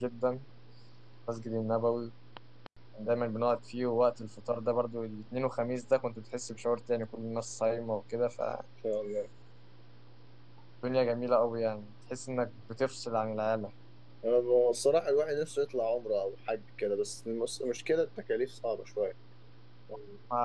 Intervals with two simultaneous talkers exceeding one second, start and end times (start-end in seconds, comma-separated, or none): none